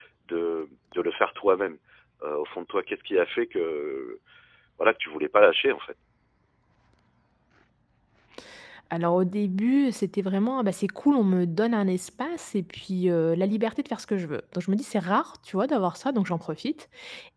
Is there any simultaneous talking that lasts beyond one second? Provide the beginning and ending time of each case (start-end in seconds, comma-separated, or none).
none